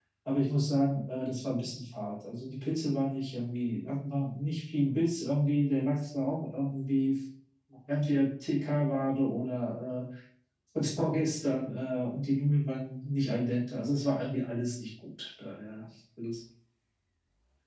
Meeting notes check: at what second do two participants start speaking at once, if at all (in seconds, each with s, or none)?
none